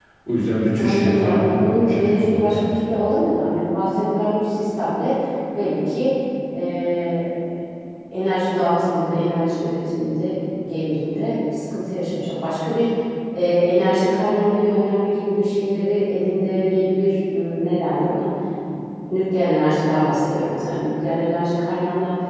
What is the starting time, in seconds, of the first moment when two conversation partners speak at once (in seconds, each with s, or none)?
0.7 s